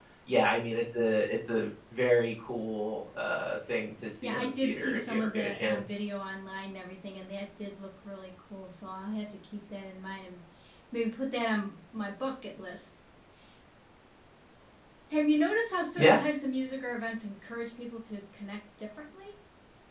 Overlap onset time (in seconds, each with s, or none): 4.2 s